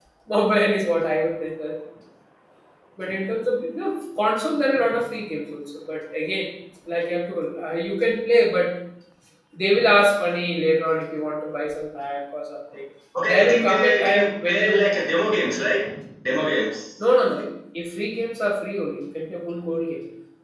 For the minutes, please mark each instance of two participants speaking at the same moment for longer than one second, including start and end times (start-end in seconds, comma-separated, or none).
13.3-14.9